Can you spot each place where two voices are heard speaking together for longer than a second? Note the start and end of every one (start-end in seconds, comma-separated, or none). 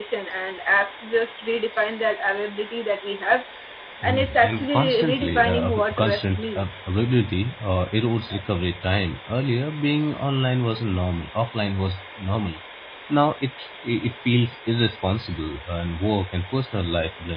4.0-6.7